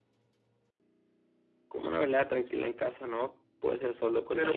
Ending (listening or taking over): taking over